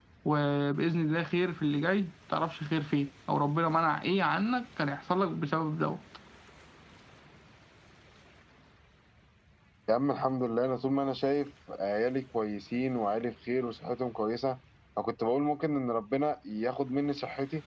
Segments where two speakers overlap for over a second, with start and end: none

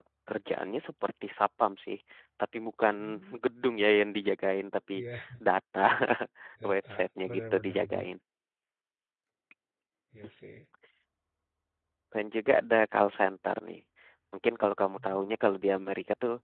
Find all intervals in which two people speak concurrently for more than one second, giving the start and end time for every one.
6.7-8.1

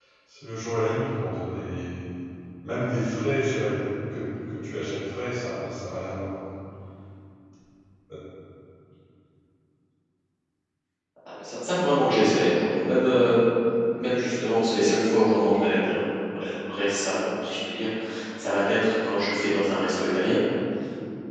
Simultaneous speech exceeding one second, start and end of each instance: none

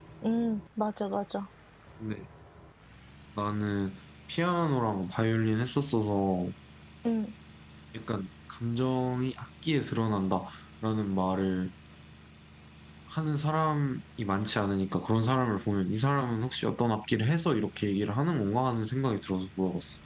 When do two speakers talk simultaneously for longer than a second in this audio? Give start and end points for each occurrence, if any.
none

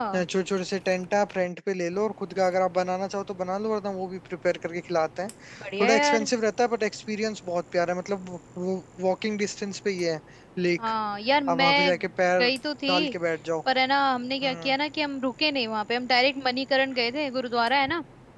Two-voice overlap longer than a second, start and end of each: none

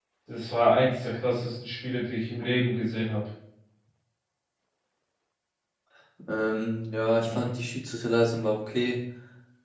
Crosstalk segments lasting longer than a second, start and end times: none

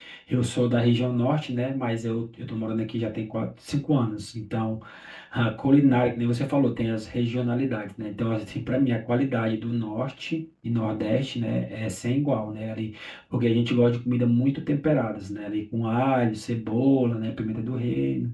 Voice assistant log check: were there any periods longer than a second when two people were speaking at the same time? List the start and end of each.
none

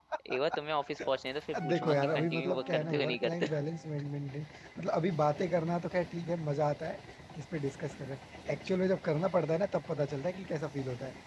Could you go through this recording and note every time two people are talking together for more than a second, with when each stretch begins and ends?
1.7-3.6

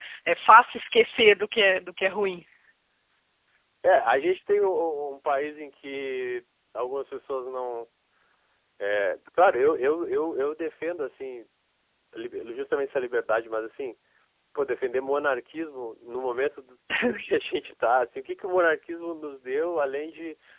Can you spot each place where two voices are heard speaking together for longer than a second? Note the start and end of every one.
none

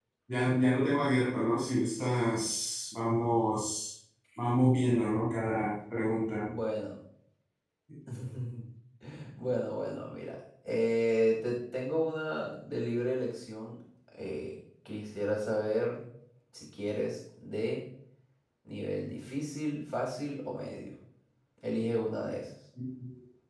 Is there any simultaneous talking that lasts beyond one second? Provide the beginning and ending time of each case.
none

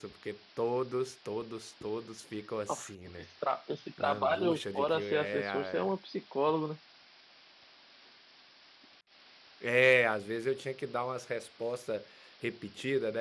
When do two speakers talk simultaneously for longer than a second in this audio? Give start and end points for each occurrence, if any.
4.0-5.9

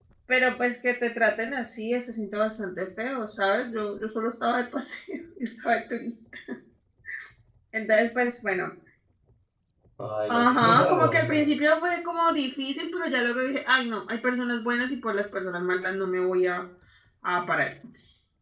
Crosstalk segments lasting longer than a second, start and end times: 10.3-11.5

